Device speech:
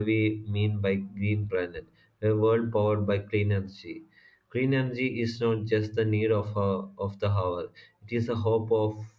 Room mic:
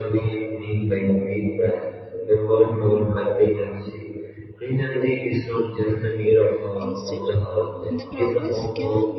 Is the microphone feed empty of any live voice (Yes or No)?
No